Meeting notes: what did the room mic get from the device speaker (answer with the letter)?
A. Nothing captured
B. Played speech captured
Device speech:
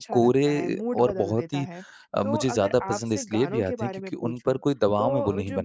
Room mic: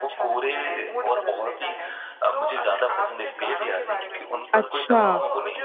B